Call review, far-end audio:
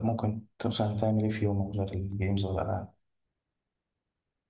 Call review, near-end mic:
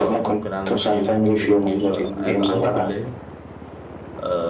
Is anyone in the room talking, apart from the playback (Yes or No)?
Yes